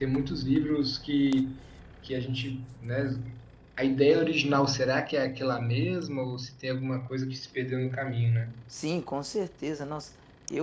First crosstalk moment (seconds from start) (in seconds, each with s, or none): none